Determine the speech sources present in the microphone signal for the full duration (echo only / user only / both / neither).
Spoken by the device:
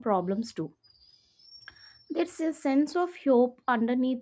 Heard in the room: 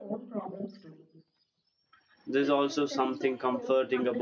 both